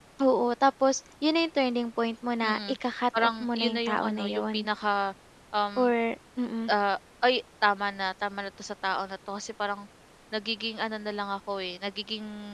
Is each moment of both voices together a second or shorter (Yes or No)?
No